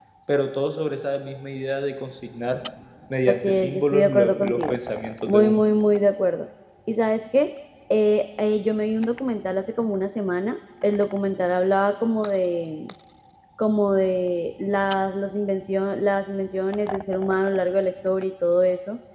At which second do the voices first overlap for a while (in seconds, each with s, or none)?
3.3 s